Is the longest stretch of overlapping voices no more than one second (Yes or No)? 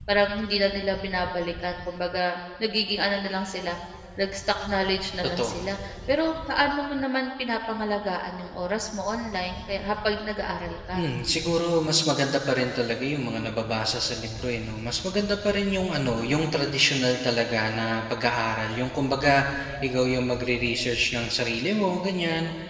Yes